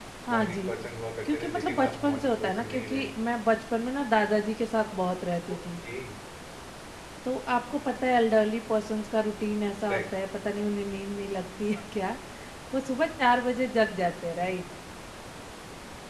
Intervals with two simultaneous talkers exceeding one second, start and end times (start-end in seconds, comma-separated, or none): 1.3-3.1